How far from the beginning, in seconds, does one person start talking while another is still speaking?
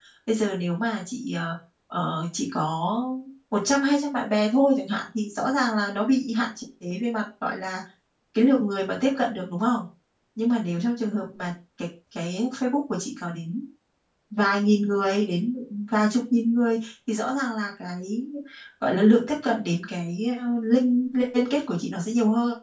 none

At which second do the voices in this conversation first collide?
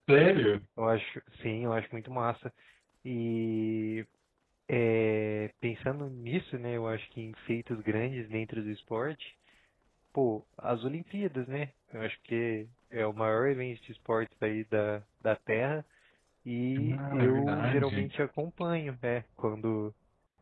16.8 s

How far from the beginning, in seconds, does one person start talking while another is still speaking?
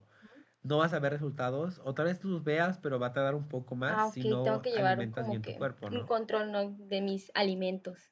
3.9 s

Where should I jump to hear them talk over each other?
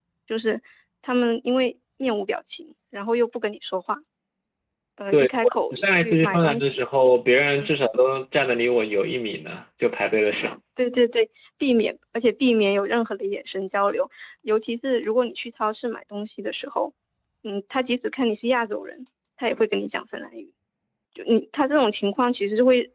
5.1 s

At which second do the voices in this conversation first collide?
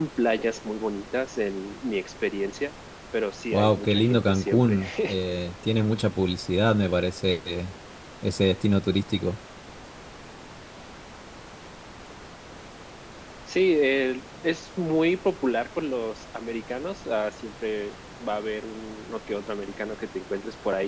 3.5 s

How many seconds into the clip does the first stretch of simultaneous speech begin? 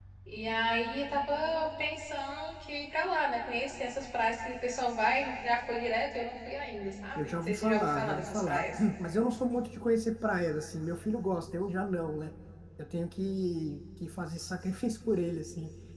7.2 s

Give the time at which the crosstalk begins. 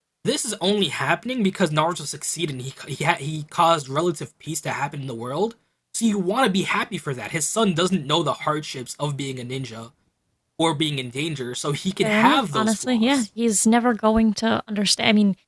12.0 s

